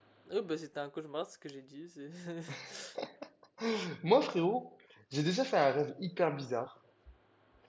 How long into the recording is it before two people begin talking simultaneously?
none

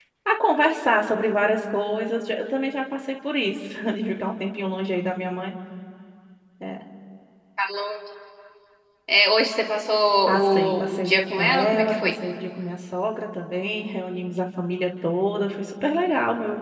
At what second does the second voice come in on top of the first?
10.3 s

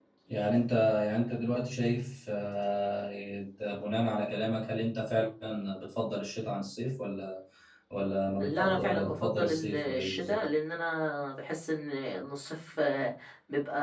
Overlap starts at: 8.4 s

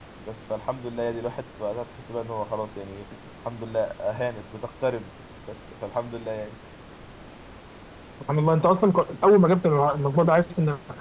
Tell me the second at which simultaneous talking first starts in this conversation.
none

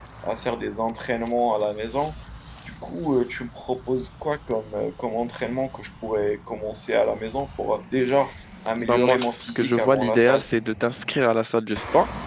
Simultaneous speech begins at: 8.8 s

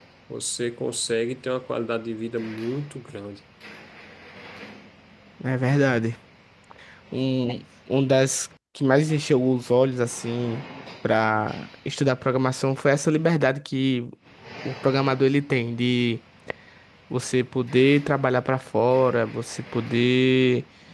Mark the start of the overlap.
none

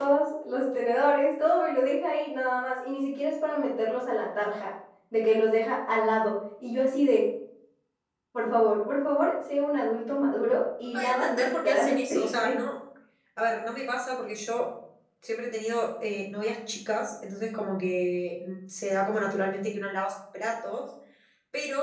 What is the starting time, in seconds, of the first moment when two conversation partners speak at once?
10.8 s

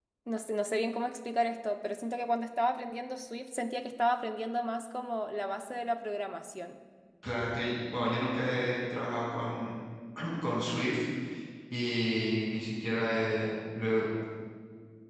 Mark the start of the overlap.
none

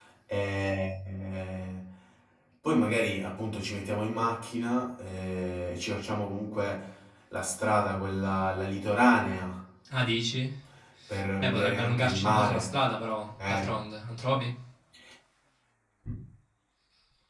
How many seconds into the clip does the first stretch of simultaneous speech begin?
11.4 s

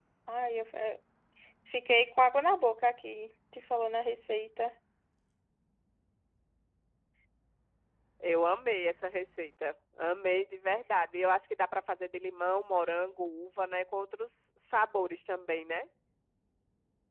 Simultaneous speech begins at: none

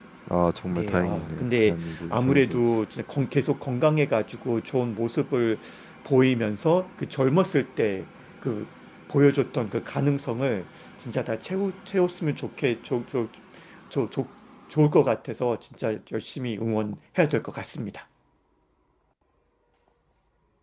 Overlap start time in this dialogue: 0.7 s

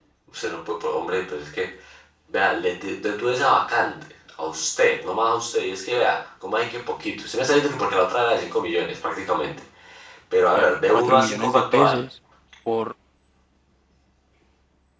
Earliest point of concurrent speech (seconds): 10.5 s

